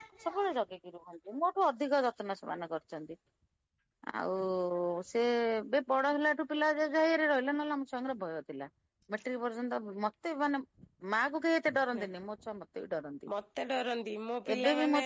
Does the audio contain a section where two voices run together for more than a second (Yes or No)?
No